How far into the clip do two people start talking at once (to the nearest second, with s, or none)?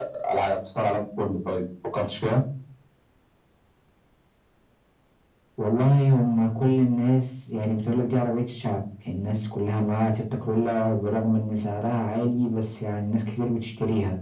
none